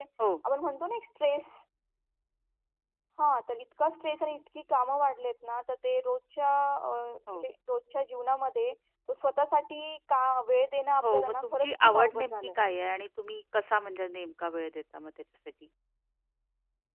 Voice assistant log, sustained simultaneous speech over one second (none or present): present